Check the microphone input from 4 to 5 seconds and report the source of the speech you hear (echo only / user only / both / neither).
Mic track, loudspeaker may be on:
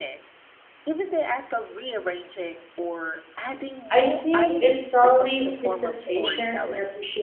both